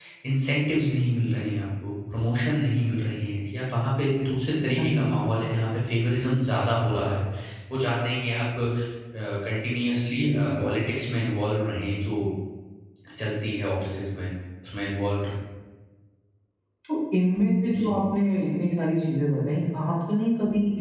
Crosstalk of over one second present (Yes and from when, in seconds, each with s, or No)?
No